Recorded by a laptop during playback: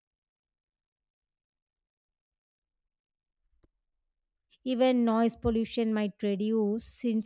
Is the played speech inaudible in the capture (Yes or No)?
Yes